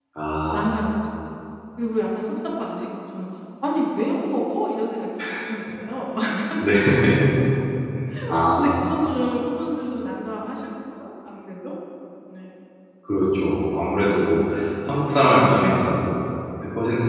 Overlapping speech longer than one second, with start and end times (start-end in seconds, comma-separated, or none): none